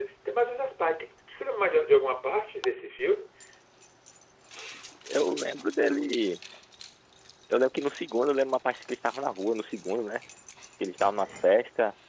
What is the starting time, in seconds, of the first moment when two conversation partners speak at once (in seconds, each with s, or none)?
none